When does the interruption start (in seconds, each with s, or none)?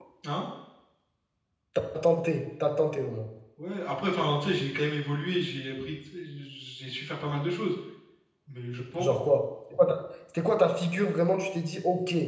none